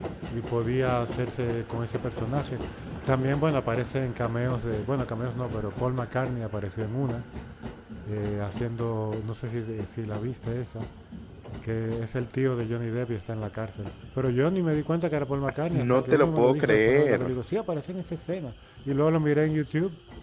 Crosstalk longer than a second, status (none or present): present